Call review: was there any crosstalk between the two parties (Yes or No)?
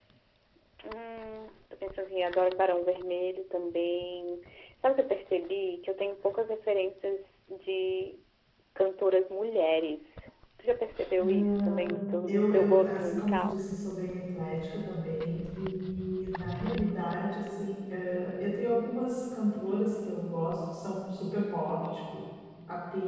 Yes